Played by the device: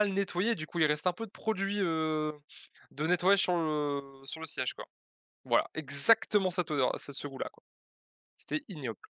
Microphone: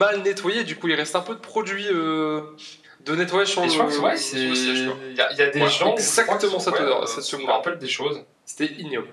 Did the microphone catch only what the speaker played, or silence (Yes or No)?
No